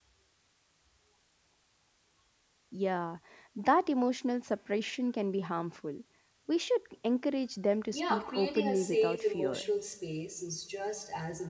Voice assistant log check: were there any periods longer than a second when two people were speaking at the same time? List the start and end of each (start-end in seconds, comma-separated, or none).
7.9-9.6